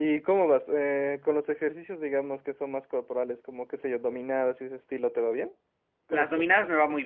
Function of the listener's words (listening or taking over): taking over